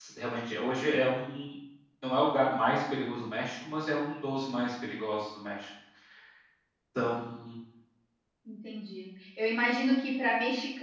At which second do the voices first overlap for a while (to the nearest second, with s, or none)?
none